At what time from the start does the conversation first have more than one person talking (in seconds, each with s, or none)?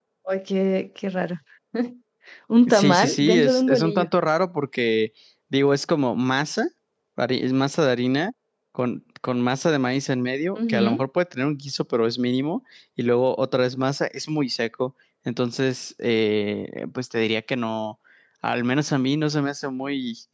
2.7 s